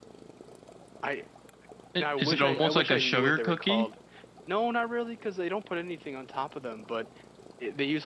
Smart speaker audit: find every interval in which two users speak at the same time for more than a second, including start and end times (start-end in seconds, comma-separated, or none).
2.0-3.9